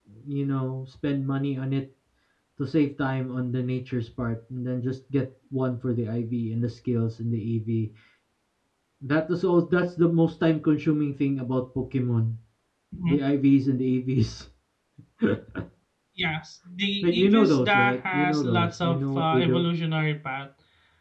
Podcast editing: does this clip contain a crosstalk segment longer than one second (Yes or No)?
Yes